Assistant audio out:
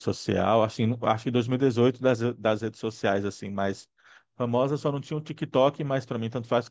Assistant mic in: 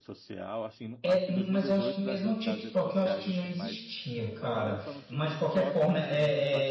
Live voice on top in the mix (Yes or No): Yes